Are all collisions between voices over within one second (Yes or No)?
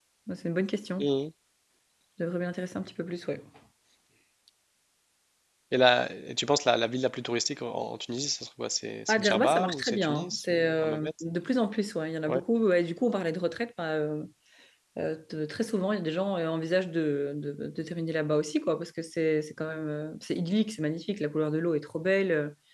No